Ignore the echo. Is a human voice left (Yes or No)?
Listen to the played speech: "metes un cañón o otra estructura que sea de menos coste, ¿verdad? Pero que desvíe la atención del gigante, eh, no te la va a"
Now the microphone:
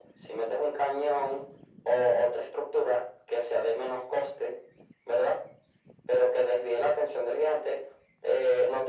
No